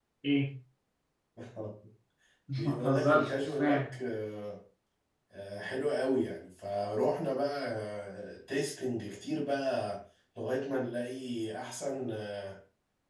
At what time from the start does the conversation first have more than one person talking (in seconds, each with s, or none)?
2.6 s